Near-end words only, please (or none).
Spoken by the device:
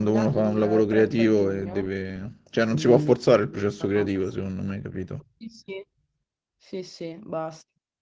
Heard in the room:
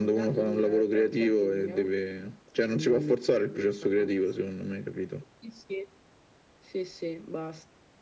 none